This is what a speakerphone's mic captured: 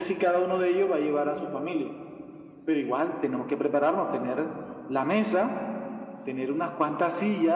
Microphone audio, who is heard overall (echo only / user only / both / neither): echo only